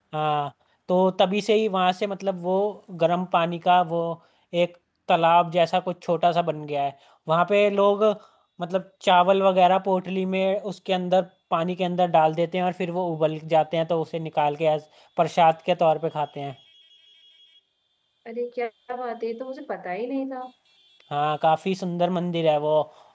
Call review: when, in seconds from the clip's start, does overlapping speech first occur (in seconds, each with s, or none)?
none